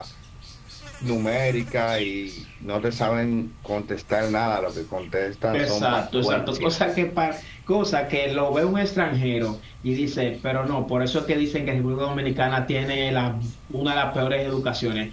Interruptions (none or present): present